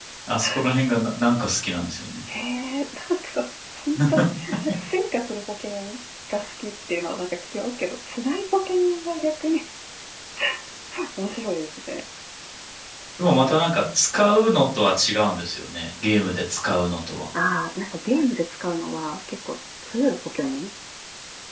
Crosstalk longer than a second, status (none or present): none